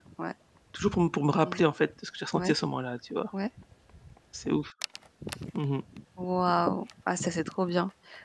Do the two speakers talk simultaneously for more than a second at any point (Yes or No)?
No